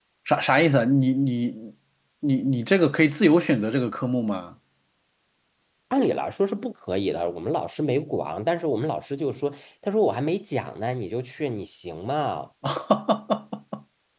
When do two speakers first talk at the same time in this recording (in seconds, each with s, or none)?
none